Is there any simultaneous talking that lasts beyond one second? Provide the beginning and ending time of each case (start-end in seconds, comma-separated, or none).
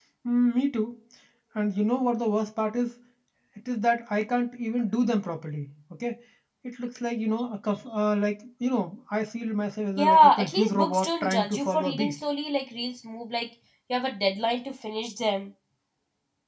10.0-12.1